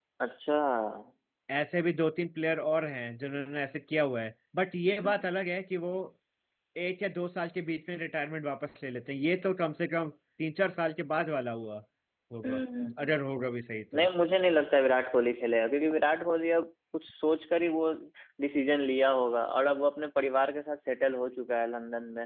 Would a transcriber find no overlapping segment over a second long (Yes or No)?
Yes